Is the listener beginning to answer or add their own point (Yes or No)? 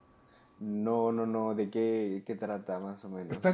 Yes